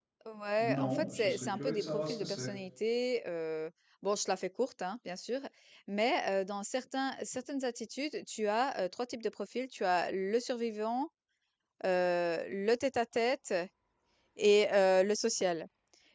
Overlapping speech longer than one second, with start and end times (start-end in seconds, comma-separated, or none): 0.6-2.5